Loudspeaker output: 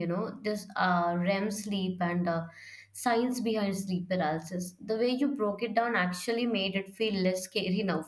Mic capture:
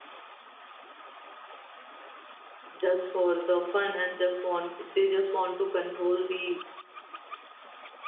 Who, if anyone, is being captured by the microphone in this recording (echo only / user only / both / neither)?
user only